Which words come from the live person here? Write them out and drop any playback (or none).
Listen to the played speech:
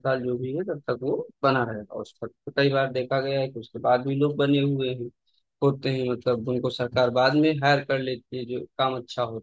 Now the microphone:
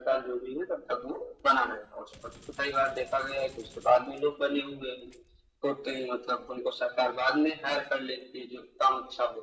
none